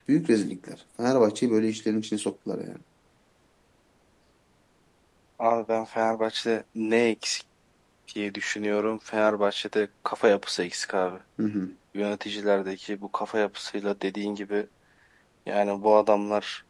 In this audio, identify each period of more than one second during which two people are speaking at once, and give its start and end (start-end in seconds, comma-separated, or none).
none